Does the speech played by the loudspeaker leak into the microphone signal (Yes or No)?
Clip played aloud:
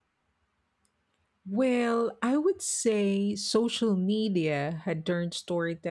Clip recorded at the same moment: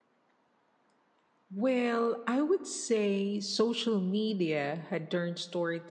Yes